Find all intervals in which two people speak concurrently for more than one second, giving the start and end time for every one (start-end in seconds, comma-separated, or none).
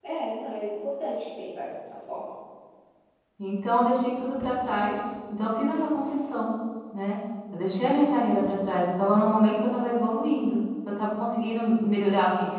none